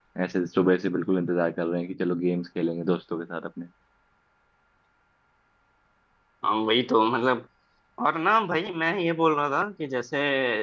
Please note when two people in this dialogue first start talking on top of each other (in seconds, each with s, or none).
none